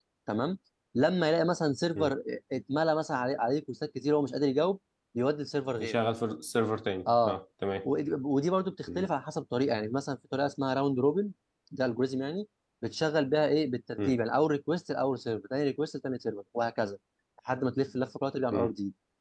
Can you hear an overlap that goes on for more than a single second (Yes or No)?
No